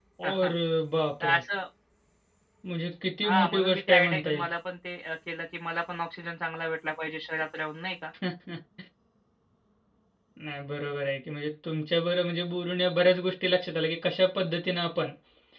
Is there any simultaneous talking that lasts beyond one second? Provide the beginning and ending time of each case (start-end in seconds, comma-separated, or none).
3.2-4.5